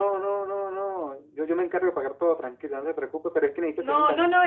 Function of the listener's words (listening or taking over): taking over